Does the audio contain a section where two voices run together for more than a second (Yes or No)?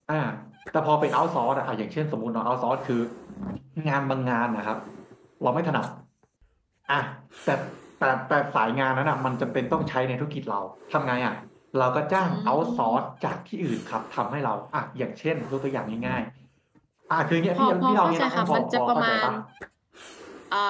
Yes